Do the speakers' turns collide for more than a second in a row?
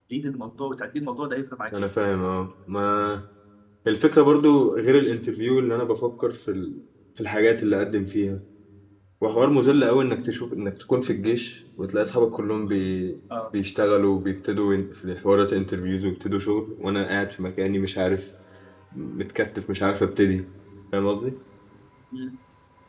No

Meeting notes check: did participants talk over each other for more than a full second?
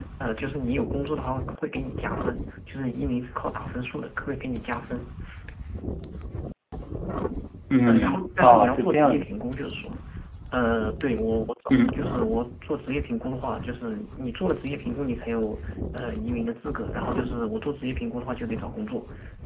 Yes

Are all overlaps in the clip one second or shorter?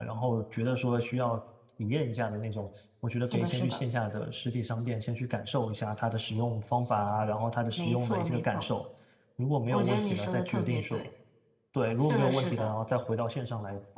No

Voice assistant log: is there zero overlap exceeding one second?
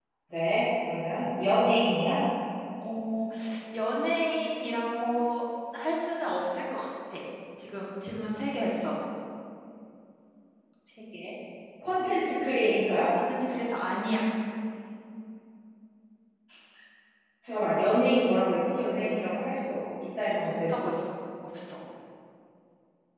Yes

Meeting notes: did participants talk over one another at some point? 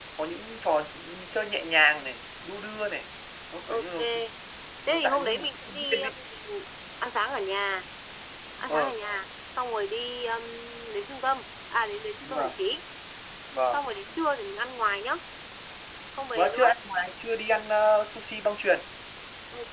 Yes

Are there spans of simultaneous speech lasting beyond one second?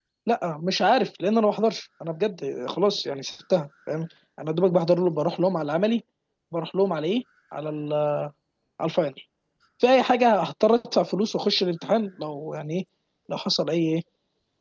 No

